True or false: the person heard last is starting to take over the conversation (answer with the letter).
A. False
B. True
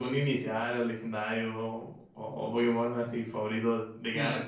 B